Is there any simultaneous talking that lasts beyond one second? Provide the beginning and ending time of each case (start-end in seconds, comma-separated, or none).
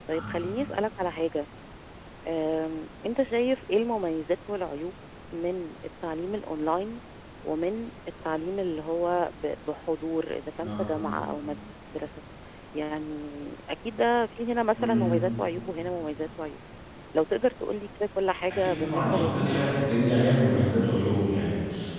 18.5-19.8